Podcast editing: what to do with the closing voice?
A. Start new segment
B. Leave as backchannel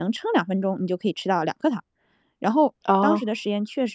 B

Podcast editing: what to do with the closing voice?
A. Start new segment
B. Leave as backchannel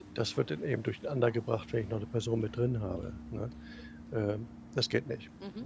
A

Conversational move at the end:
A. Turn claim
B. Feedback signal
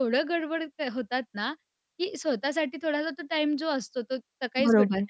B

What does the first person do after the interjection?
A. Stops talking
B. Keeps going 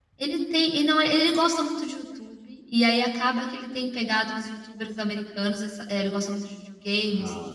B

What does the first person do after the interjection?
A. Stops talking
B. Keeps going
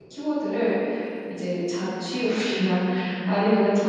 B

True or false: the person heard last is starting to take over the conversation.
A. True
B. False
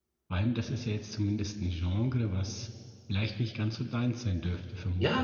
A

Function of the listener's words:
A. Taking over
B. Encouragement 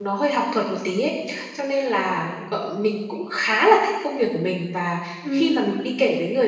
B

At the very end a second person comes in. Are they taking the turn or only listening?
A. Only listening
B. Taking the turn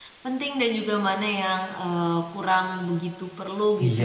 B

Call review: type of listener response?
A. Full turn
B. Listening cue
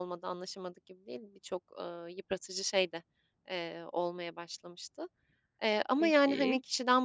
B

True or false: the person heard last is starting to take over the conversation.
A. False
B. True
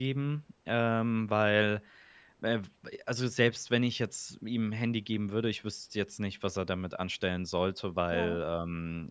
A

